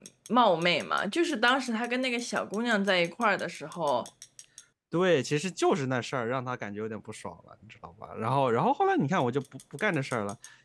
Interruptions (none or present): none